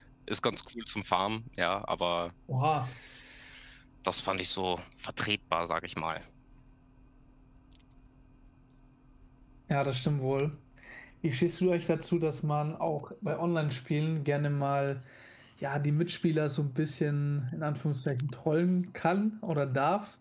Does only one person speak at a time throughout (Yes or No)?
Yes